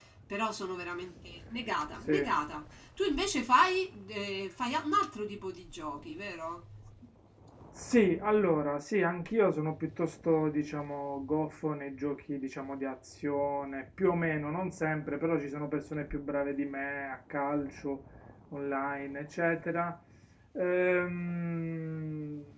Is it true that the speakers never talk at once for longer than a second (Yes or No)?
Yes